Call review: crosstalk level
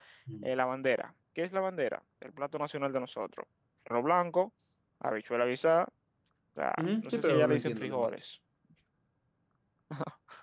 present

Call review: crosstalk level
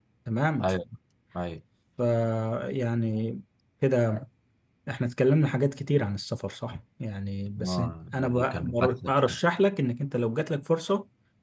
present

